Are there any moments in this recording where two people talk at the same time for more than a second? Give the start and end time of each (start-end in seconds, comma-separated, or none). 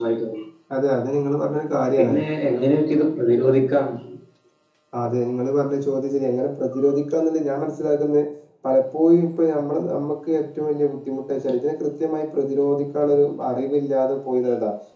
none